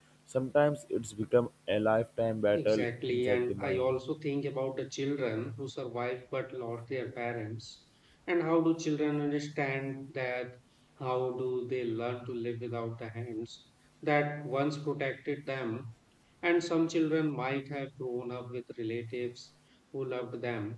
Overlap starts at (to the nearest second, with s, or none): 3 s